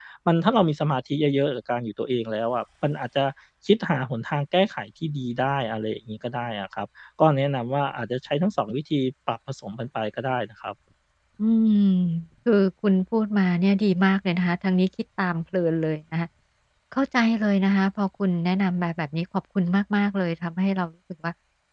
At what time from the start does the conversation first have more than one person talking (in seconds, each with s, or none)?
none